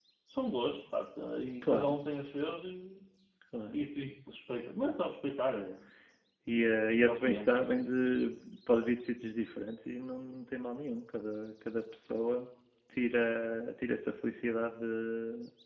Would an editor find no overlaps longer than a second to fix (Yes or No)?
Yes